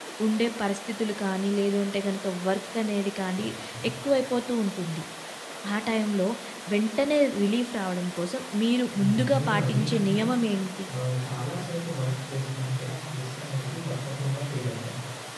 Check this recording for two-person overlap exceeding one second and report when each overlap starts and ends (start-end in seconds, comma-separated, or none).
8.9-10.2